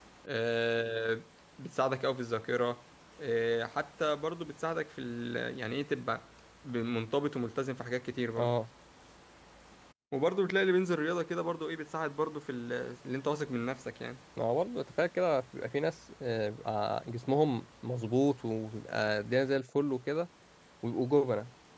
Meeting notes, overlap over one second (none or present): none